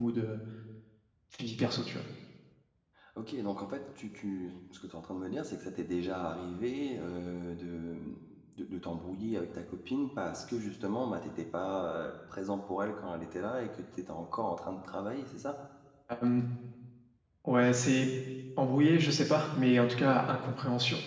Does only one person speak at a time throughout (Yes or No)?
Yes